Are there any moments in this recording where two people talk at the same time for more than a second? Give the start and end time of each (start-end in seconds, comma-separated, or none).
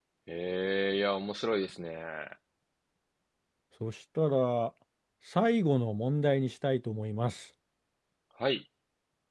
none